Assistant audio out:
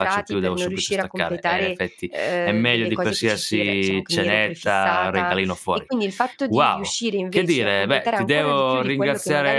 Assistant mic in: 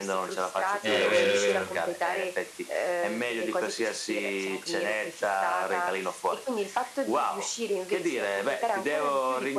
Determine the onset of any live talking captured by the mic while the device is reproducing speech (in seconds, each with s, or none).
0.8 s